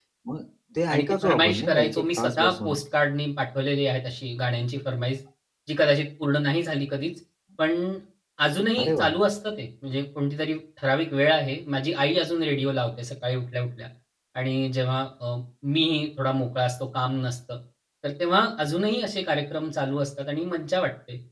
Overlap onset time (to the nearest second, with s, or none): 1 s